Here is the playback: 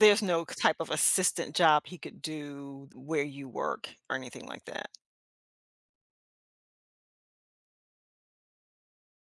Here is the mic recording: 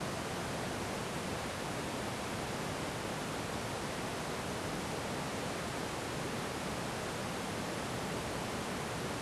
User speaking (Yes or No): No